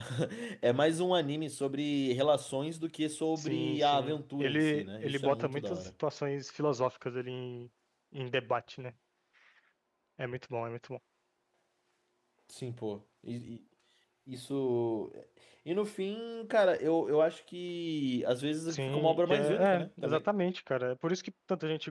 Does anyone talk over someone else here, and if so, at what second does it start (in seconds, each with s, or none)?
3.4 s